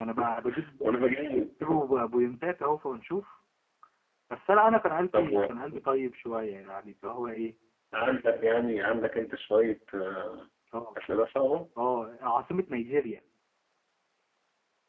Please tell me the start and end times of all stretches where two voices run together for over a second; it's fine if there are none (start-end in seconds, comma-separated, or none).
none